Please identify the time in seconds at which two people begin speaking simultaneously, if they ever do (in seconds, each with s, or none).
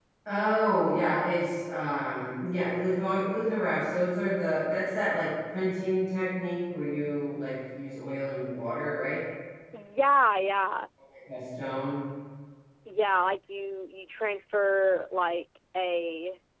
none